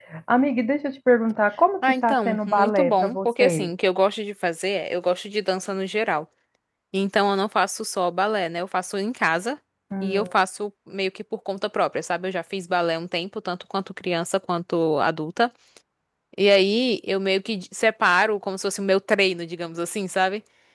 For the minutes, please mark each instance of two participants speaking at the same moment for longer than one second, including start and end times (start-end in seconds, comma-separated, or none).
1.8-3.7